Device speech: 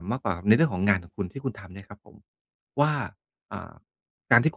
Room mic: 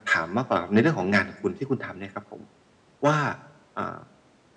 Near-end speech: none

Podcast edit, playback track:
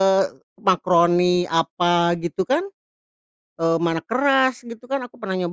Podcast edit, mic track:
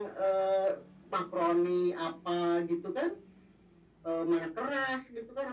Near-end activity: none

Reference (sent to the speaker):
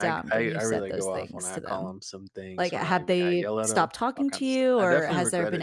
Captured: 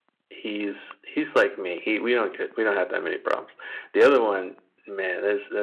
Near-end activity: present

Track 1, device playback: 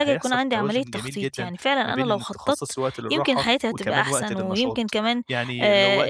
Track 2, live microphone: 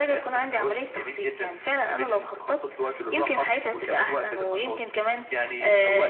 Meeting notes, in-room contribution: none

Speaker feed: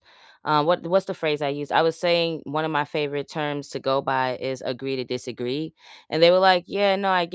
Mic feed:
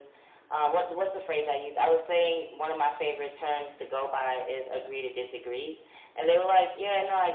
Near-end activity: none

